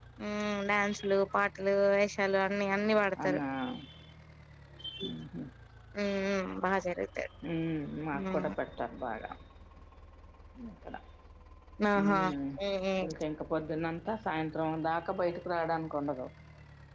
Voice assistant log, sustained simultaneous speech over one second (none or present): none